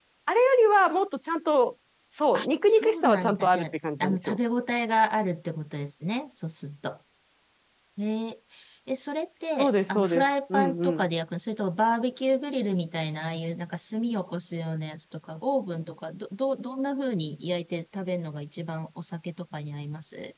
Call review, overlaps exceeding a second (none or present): present